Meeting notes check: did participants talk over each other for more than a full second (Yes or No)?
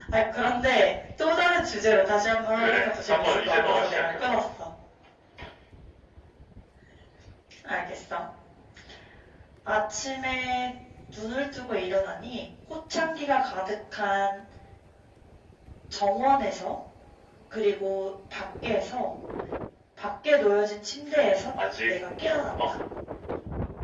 Yes